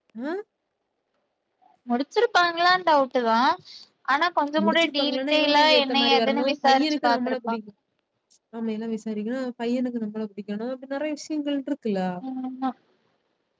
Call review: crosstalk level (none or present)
present